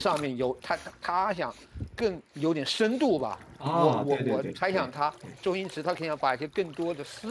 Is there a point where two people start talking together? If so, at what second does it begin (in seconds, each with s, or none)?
3.6 s